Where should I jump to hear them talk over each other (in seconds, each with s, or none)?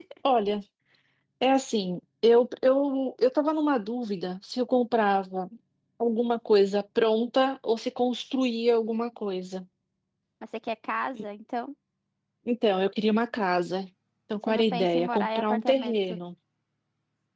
14.5 s